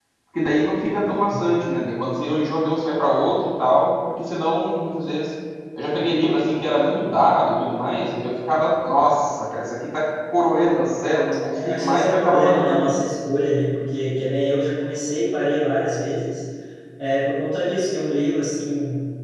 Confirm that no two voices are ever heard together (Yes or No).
No